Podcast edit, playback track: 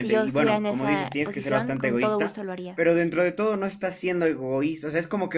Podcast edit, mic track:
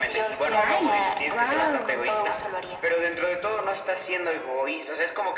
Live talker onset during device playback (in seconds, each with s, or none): 0.5 s